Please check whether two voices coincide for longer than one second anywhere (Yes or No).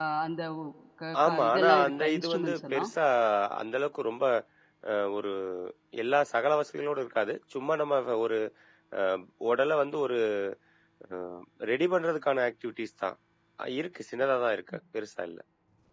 Yes